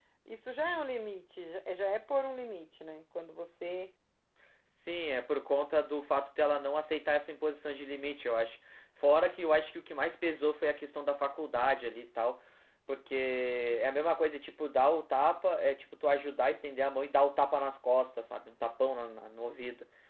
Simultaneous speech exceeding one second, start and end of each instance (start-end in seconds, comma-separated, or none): none